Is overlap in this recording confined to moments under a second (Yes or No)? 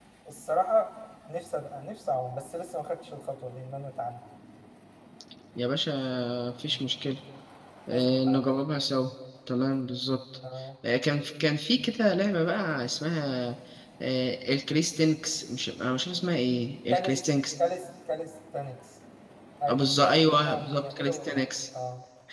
No